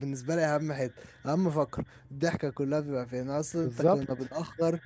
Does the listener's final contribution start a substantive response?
No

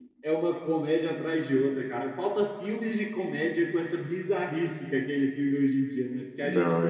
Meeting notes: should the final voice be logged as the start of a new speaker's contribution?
Yes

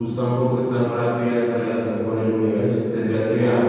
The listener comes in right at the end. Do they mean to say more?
No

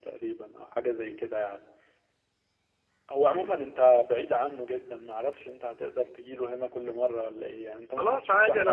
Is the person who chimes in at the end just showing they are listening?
No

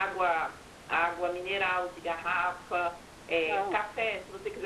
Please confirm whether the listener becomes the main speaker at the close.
No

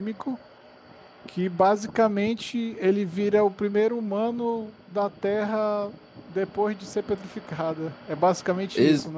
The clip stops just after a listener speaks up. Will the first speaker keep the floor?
No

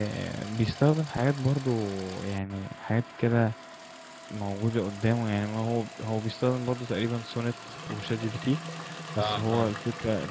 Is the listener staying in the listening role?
Yes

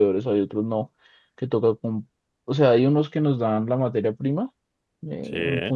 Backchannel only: Yes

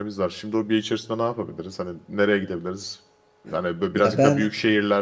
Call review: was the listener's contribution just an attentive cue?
Yes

